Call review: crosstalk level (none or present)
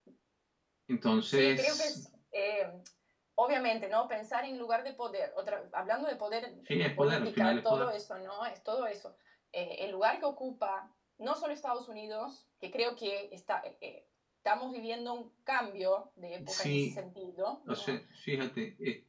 present